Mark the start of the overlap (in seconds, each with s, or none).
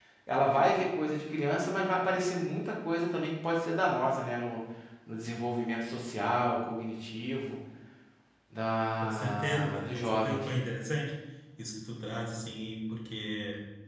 9.0 s